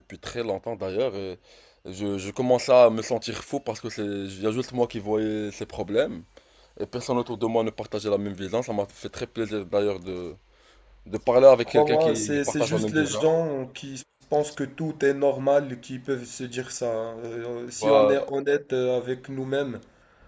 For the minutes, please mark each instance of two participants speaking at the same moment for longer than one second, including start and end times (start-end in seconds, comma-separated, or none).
11.7-13.2